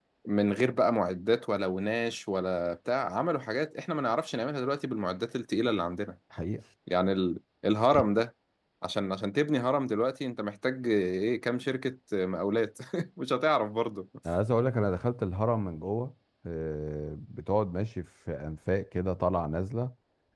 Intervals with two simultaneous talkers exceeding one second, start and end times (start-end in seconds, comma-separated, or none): none